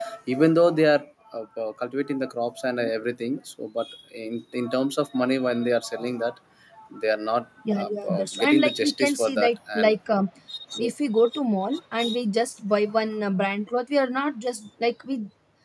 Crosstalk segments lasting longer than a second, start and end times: 7.7-9.9

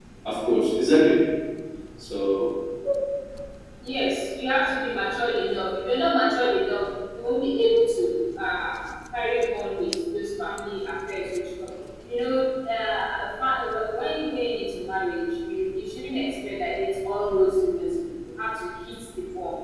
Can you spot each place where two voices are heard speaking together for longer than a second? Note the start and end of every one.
none

